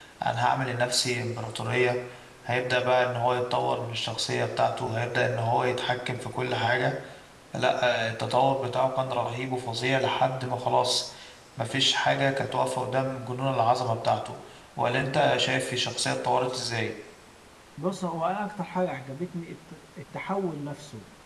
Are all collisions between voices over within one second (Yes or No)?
Yes